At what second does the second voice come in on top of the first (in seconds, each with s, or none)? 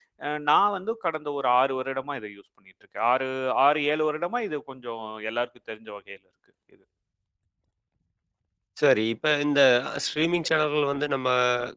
none